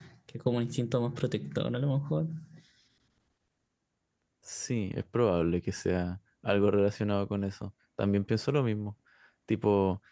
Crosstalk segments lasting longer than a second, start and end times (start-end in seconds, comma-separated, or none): none